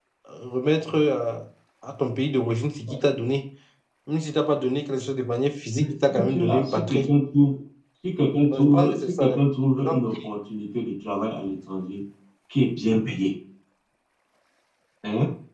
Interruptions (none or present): present